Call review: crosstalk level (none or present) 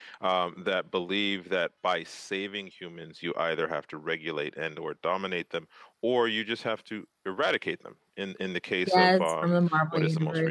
present